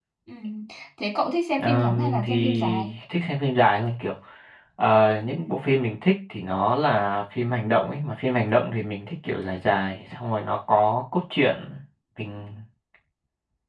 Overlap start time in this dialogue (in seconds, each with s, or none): 1.6 s